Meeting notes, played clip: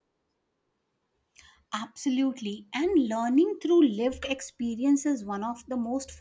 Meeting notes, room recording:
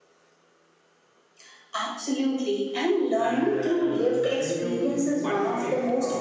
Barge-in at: 3 s

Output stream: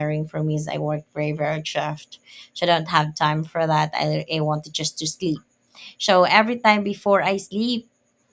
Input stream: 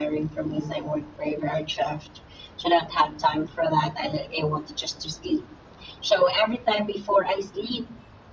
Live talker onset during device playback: none

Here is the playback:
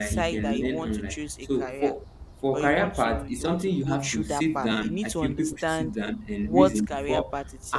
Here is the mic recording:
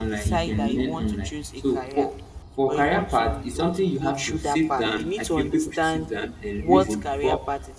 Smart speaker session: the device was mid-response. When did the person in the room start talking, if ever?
none

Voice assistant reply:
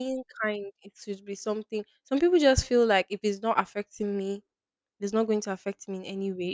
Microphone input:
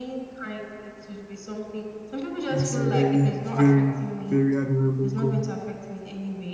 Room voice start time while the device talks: 2 s

